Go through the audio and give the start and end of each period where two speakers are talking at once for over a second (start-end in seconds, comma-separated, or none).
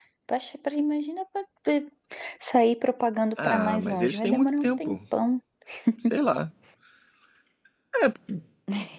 3.4-5.0